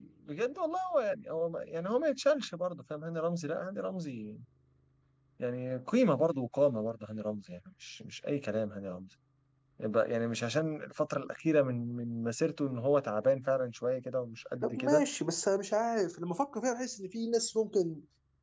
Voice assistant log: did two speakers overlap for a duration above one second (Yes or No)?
No